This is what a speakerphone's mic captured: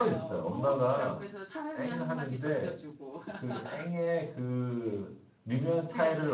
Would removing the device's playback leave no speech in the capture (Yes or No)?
No